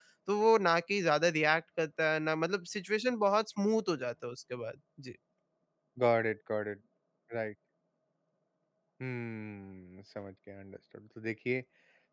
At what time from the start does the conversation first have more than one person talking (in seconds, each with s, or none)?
none